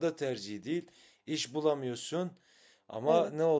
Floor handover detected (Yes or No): No